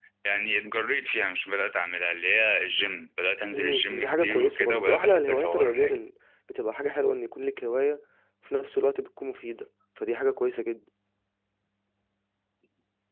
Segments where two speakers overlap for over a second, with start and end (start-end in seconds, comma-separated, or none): 3.5-6.0